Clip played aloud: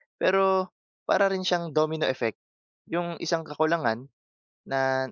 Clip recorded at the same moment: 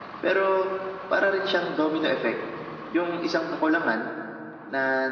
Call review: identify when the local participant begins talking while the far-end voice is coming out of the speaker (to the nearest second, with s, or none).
none